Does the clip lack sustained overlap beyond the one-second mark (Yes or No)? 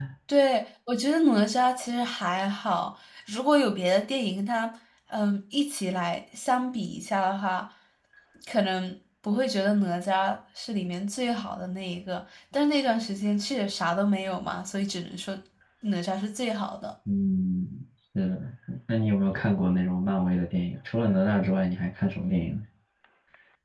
Yes